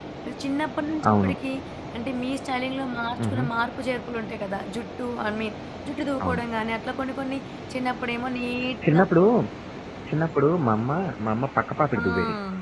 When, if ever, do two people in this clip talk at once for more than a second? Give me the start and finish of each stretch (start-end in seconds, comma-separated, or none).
none